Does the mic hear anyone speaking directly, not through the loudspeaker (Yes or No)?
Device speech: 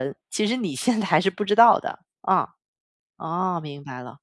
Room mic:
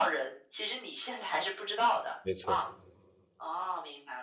Yes